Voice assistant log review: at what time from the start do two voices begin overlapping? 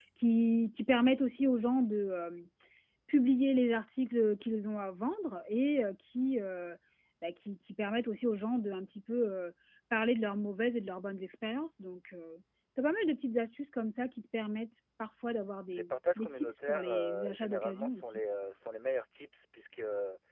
15.7 s

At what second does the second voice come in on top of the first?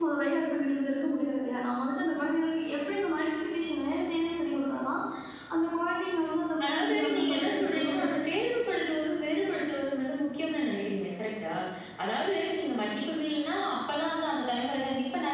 6.6 s

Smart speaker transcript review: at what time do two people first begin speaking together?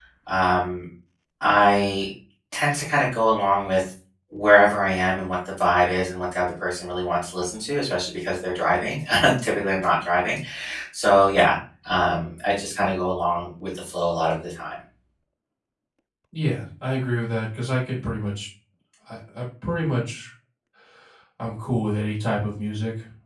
none

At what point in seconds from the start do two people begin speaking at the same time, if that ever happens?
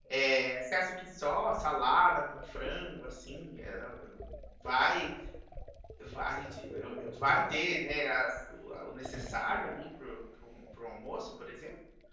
none

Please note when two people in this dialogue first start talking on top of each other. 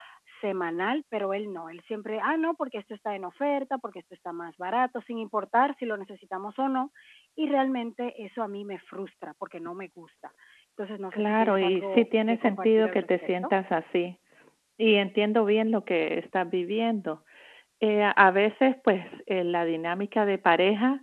11.1 s

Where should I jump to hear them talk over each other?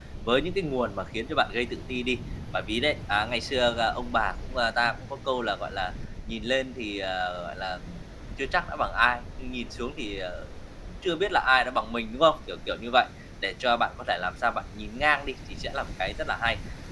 none

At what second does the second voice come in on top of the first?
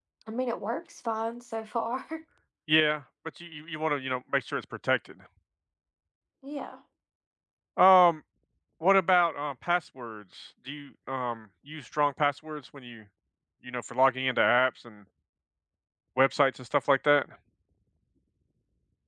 none

